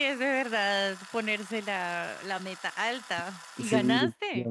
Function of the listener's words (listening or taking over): taking over